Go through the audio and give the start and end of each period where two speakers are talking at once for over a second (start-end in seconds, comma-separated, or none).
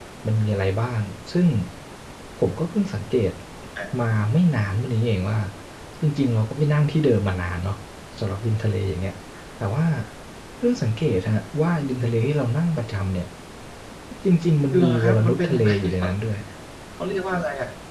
14.7-16.1